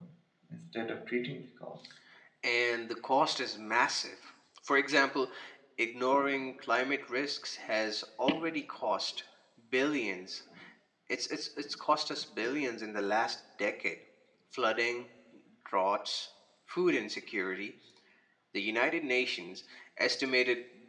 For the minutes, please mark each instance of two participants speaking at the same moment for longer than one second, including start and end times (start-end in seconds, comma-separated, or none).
none